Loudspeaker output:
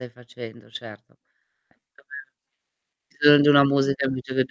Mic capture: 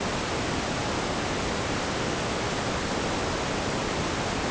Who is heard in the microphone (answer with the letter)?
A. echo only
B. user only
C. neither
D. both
C